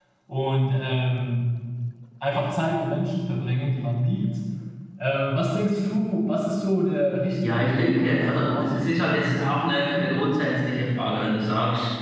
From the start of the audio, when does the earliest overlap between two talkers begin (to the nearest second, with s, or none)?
7 s